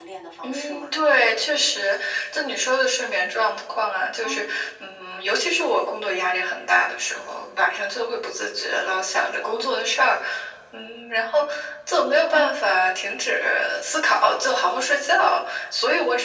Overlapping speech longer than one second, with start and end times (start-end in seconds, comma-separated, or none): none